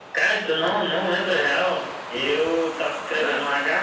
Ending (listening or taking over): listening